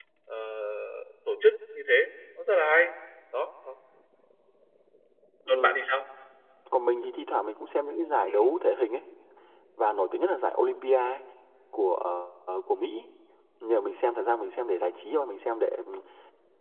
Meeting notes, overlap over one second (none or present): none